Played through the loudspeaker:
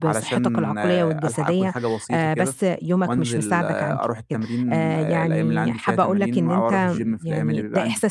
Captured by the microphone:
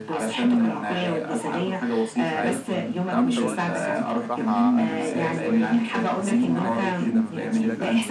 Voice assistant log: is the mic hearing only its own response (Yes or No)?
No